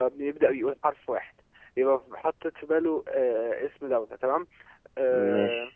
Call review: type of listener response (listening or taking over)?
listening